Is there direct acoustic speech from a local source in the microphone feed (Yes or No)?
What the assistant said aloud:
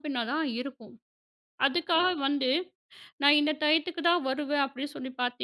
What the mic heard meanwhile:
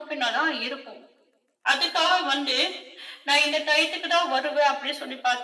No